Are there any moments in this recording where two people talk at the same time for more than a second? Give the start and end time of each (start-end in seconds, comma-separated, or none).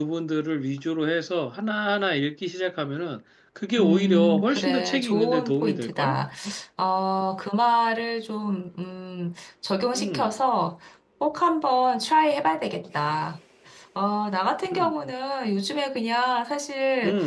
3.8-6.2